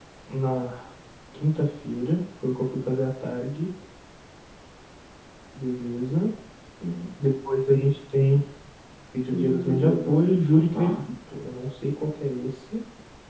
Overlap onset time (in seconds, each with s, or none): 9.3 s